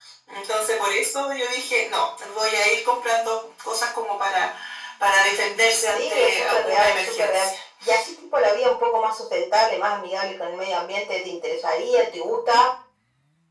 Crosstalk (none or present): present